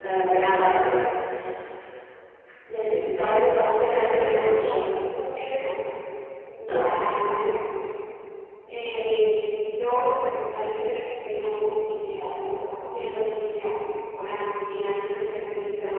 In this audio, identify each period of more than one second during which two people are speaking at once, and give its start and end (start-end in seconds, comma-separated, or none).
3.5-4.8